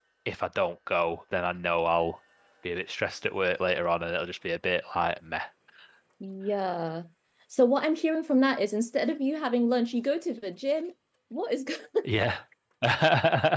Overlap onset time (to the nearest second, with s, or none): none